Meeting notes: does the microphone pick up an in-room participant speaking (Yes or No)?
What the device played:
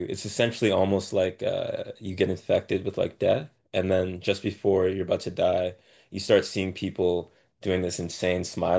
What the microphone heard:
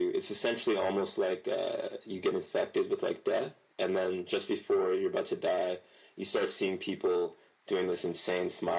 No